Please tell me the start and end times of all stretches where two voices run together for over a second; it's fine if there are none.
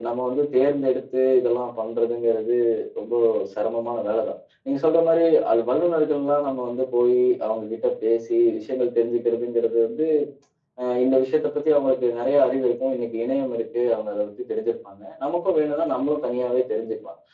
none

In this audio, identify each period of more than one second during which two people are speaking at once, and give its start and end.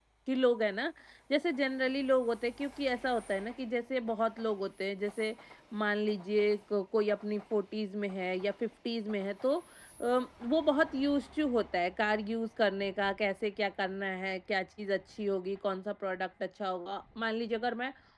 none

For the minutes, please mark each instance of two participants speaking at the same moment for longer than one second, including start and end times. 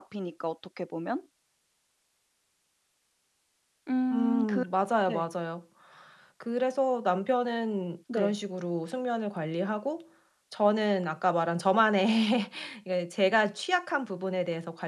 none

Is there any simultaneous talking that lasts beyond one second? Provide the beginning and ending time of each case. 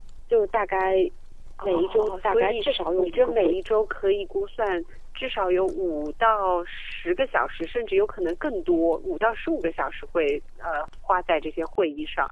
1.6-3.5

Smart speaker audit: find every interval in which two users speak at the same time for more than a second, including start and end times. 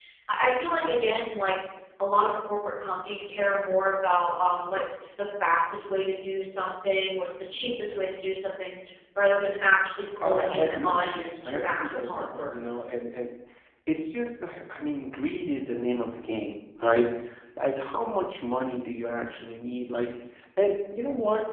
10.2-12.5

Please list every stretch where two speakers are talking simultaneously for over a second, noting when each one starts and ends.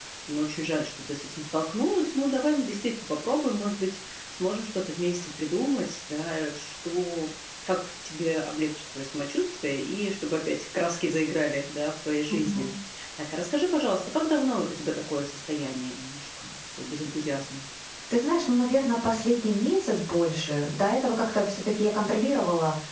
none

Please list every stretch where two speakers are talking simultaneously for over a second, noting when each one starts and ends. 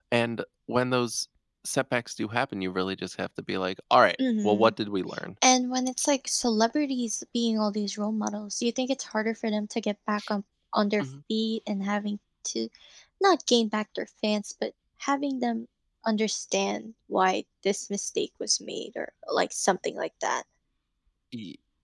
none

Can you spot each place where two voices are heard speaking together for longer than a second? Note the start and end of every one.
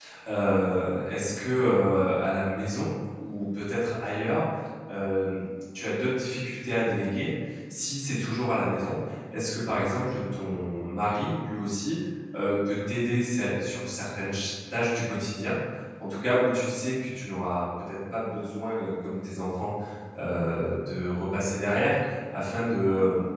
none

